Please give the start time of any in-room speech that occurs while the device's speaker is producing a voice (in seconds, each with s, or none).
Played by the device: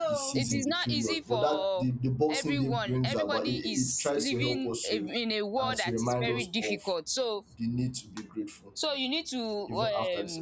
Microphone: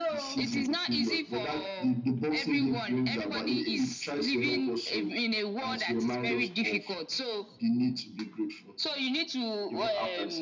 none